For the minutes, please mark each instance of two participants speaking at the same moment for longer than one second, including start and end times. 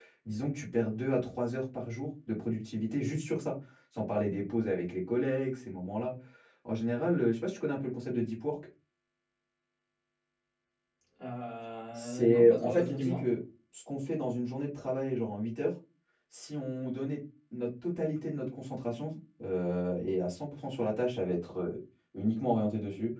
11.9-13.3

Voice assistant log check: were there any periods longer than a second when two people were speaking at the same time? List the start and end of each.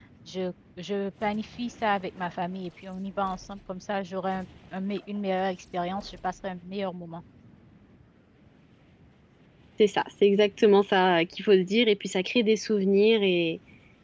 none

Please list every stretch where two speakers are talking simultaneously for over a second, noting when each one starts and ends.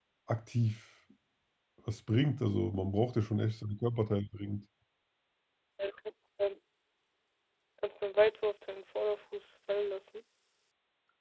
none

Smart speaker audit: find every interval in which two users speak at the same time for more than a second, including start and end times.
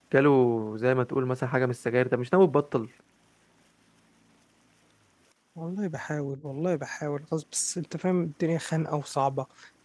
none

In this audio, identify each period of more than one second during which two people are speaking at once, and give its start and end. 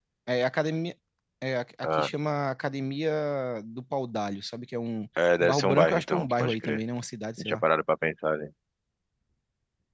5.4-6.8

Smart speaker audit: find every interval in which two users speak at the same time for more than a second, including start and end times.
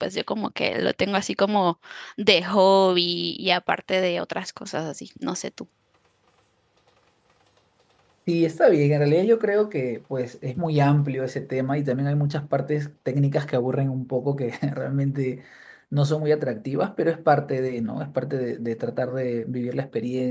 none

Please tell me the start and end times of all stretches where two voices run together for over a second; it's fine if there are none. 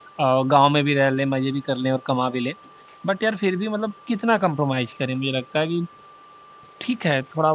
none

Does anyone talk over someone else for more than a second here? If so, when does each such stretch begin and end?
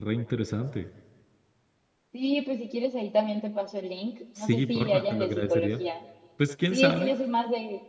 4.4-5.8

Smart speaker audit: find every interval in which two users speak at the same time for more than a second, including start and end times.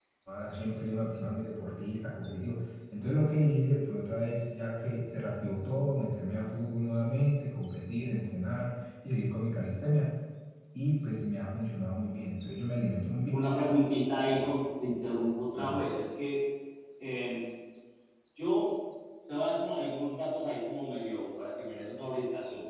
none

